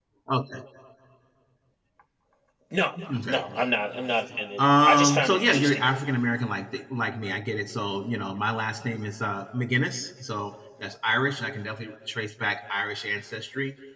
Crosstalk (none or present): present